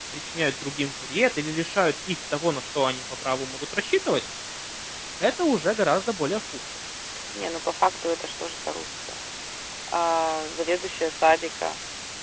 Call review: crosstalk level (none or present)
none